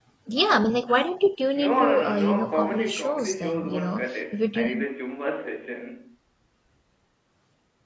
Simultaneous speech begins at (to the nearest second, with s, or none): 2 s